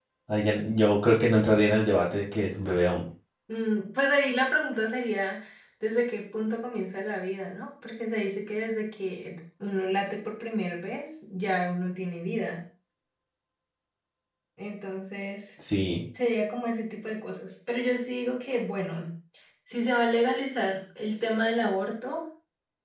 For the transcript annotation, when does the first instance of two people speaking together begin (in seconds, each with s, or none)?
none